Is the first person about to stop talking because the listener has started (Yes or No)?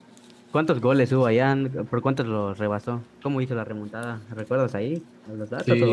Yes